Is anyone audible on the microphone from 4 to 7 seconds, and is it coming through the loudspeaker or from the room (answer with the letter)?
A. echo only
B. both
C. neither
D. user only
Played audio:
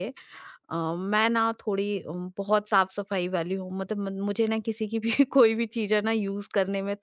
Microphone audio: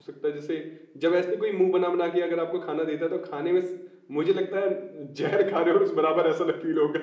D